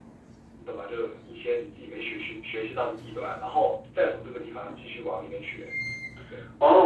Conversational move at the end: taking over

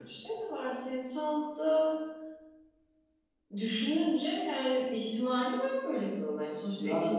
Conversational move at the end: listening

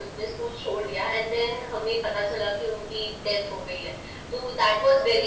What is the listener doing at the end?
listening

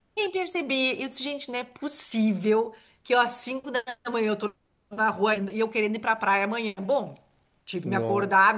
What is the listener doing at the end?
listening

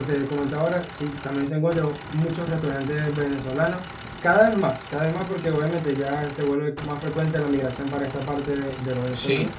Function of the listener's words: taking over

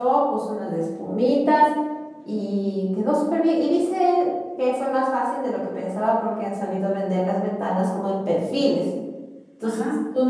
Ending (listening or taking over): listening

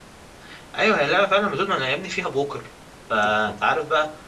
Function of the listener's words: listening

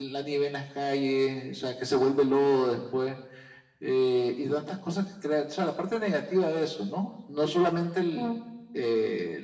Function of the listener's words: listening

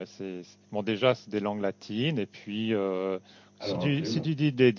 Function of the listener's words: listening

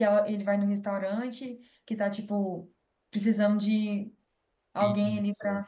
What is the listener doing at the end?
taking over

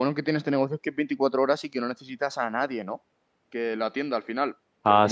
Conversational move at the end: listening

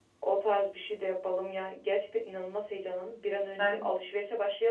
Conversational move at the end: listening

